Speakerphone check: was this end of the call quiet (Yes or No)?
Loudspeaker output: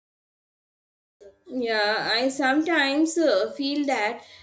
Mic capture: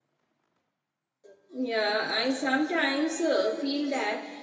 Yes